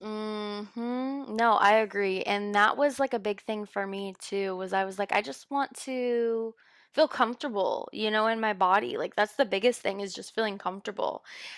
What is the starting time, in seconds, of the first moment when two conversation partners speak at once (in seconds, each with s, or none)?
none